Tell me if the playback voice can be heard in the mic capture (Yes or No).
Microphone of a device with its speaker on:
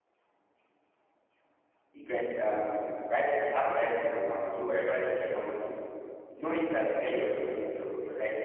No